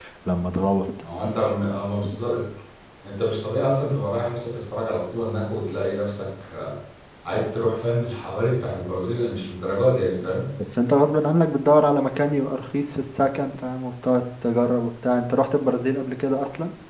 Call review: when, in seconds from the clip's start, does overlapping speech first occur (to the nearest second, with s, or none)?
none